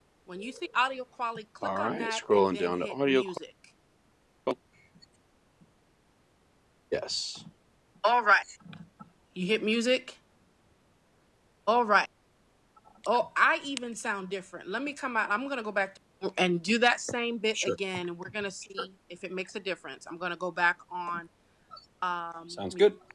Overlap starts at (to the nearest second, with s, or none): 2 s